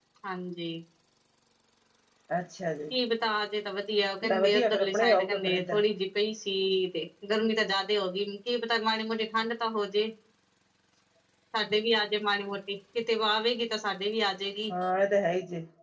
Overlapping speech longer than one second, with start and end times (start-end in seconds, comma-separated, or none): 4.2-5.8